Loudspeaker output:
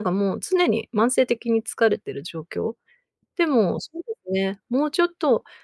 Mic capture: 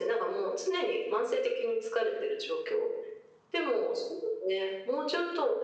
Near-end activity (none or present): none